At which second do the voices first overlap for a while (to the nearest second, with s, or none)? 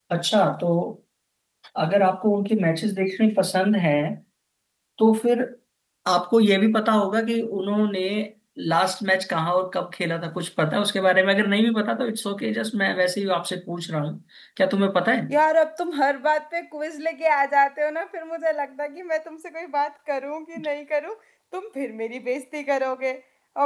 none